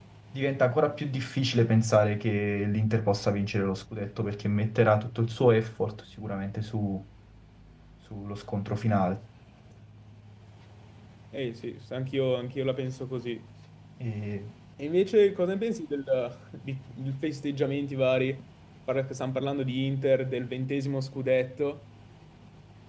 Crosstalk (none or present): none